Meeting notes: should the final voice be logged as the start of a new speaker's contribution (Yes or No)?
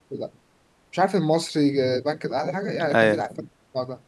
No